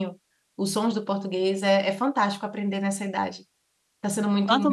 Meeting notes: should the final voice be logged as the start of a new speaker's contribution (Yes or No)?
Yes